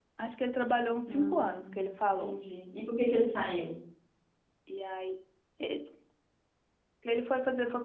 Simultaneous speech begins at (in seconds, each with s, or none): 1.1 s